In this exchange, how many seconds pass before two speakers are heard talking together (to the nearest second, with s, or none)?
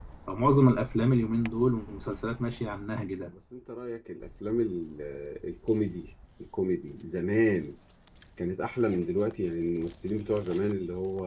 none